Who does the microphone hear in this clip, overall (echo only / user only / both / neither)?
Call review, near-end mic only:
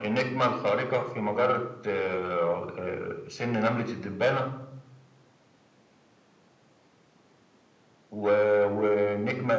echo only